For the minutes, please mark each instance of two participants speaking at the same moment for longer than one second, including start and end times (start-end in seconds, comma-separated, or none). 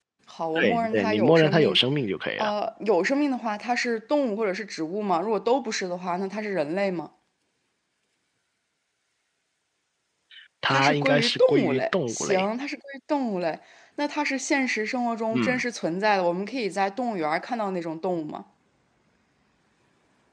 0.6-1.8, 10.7-12.5